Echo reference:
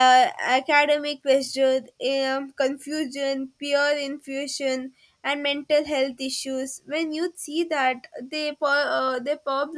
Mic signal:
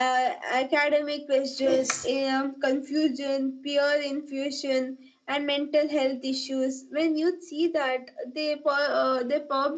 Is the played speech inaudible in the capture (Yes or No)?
No